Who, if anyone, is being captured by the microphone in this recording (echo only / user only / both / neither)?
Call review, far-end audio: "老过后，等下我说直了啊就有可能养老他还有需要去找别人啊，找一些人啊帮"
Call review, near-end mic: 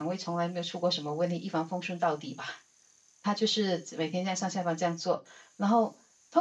user only